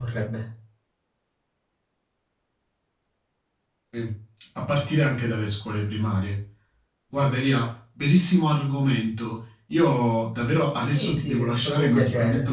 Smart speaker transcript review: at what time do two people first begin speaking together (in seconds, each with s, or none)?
10.9 s